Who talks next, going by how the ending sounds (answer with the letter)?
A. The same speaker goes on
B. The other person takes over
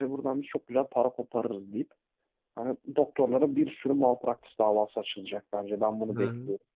B